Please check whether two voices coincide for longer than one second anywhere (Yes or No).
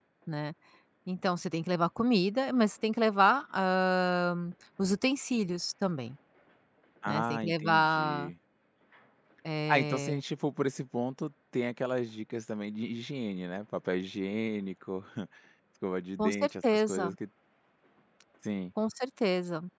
Yes